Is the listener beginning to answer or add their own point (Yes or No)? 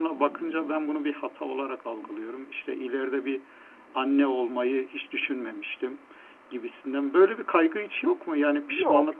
Yes